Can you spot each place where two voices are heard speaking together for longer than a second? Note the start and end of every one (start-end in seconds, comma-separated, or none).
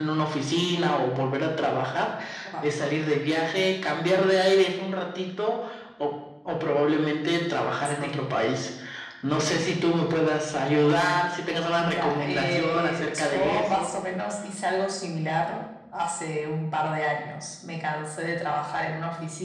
11.8-13.9